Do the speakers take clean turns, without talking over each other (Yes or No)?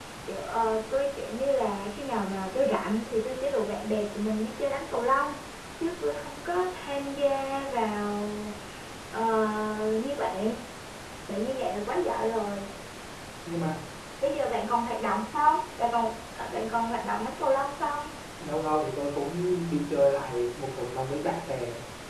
Yes